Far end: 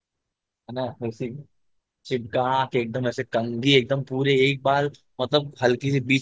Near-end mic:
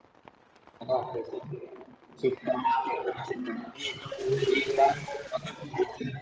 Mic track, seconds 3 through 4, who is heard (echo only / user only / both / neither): echo only